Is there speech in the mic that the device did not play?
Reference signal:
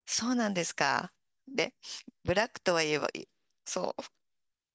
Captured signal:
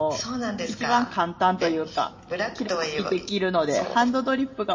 Yes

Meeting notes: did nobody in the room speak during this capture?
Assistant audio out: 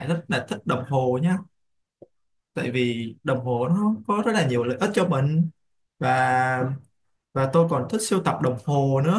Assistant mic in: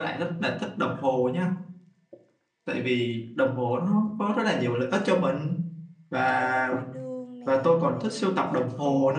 No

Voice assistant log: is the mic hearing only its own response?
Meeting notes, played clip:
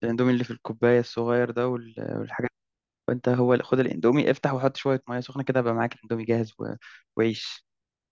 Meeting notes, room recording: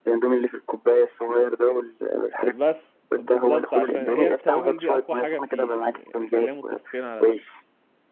No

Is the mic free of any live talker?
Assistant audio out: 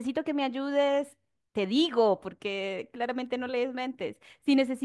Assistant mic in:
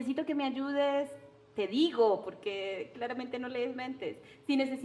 Yes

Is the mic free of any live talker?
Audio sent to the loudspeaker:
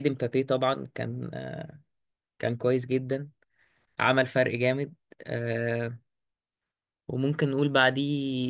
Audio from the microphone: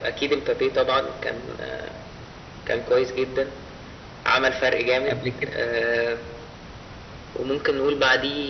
No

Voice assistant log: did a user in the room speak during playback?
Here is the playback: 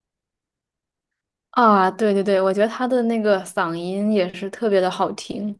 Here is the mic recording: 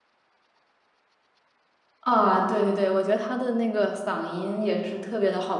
No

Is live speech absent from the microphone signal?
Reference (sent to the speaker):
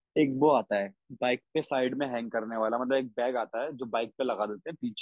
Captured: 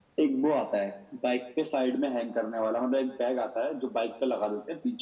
Yes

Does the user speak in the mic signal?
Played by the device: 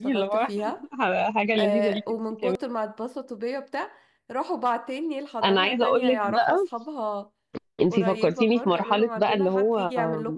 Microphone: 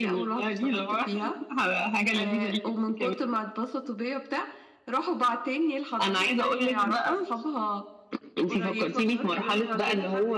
No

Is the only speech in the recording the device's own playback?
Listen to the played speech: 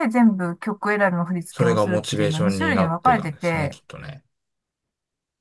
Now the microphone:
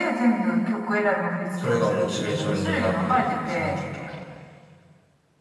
Yes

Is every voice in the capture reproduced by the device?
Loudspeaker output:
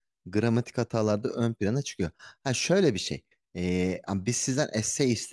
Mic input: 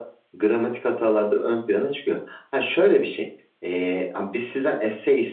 Yes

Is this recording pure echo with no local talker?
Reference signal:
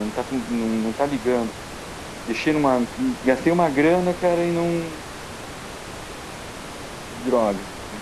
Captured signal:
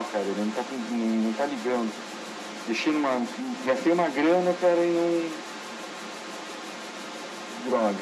Yes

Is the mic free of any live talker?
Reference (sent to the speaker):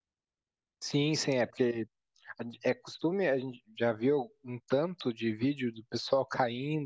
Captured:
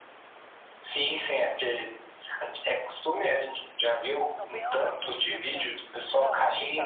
No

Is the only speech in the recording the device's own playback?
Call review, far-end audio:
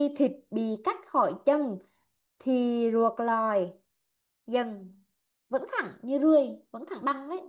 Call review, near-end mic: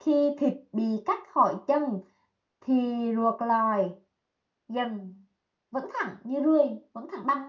Yes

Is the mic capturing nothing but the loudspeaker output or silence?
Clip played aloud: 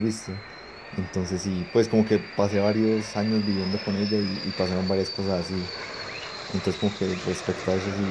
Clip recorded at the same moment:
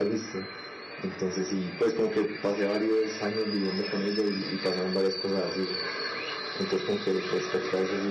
Yes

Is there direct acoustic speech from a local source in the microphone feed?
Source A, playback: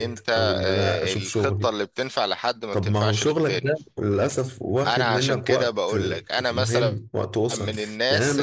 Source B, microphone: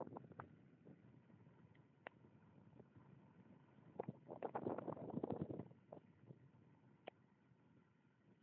No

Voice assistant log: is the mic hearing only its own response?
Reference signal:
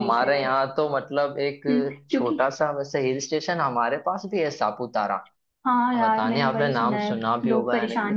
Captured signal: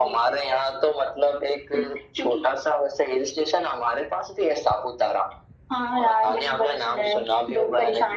Yes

